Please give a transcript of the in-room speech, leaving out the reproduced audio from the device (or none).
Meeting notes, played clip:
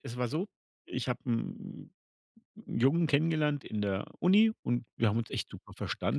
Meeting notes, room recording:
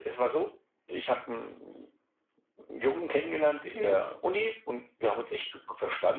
Okay.